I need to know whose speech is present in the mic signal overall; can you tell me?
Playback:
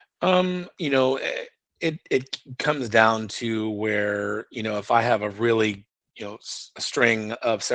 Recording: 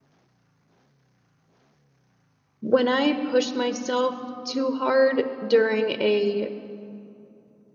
user only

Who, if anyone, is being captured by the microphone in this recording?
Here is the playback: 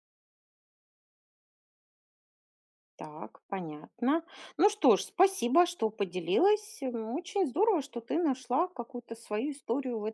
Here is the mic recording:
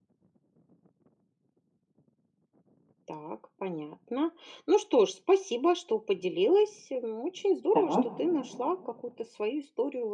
both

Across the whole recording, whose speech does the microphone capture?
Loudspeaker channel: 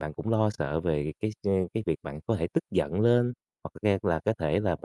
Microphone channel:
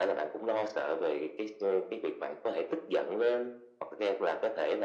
echo only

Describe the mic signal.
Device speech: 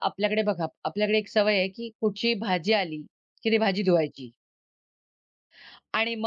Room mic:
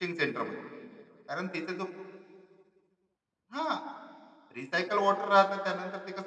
user only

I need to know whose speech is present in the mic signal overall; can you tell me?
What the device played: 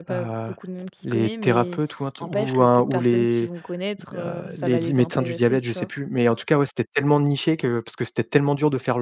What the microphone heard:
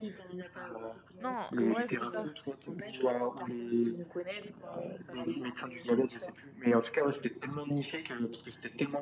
both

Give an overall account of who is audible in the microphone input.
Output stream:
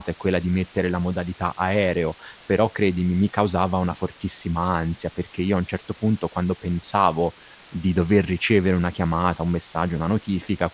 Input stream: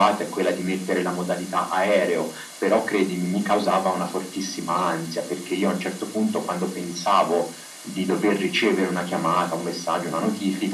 echo only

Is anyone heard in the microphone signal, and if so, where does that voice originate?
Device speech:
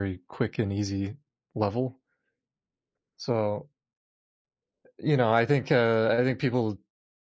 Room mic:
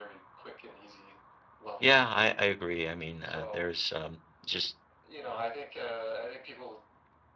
both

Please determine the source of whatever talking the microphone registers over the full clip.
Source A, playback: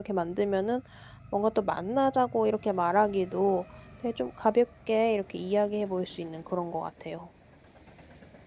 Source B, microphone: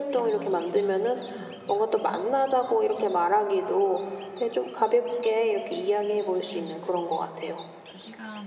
both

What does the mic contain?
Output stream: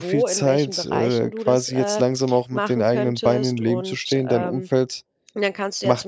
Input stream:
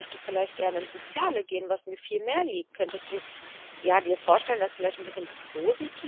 user only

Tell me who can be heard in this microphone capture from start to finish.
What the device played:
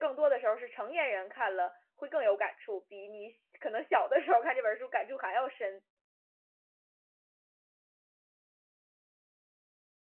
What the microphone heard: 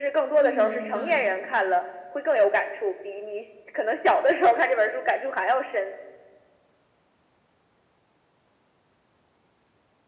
both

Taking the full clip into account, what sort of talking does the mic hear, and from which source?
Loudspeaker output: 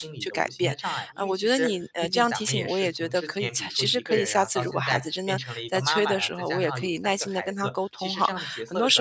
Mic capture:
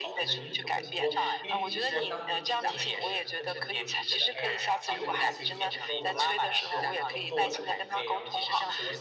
both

